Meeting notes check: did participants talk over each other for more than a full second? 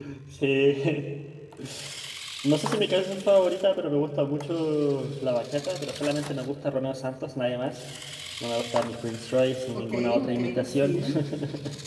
Yes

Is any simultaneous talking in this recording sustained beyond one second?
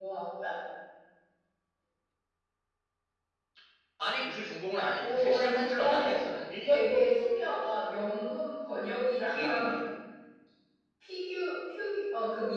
Yes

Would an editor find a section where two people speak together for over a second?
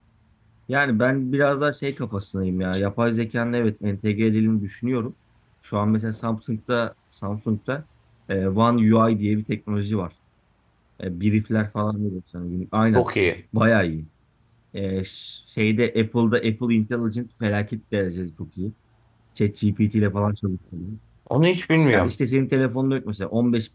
No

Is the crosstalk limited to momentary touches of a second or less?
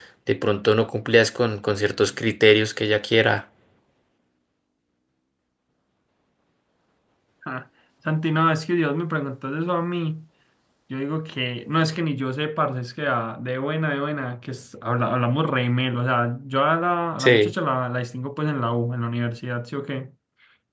Yes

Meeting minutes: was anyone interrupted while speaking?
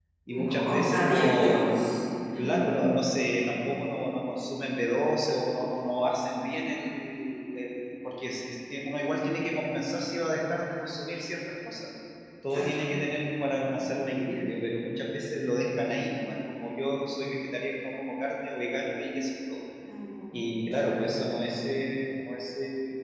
Yes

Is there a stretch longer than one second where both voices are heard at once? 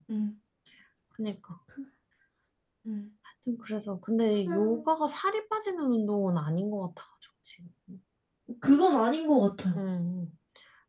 No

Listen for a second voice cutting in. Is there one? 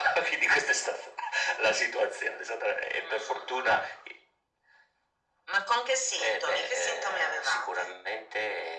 Yes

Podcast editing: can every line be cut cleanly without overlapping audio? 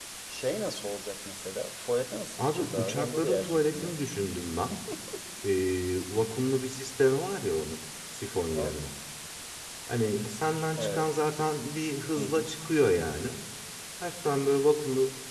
No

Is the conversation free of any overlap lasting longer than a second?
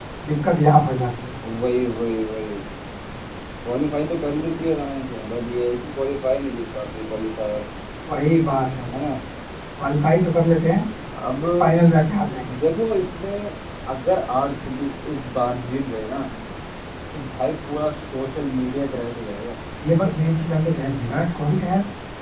Yes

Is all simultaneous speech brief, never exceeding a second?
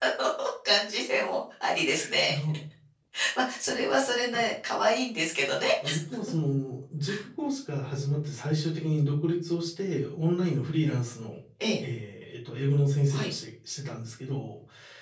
Yes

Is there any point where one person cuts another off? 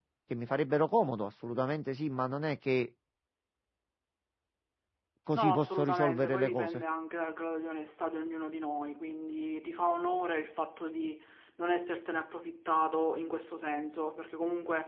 Yes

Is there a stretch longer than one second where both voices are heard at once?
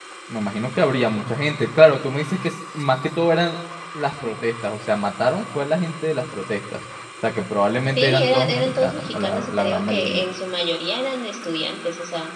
Yes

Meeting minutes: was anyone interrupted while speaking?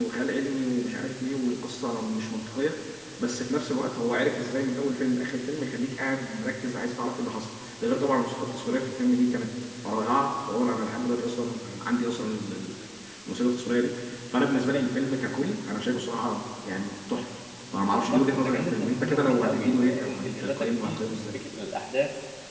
Yes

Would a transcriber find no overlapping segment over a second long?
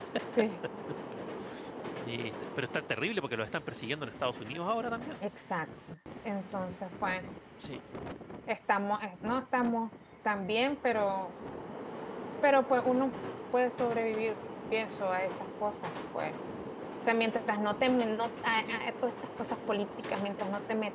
Yes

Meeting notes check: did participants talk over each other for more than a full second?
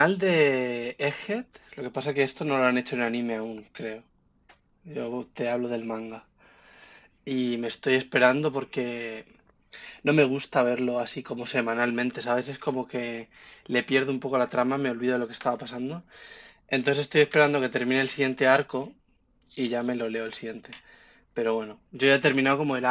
No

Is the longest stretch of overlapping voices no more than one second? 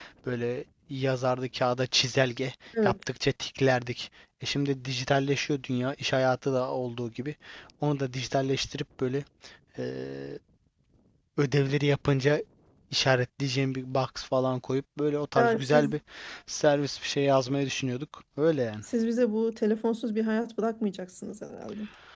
Yes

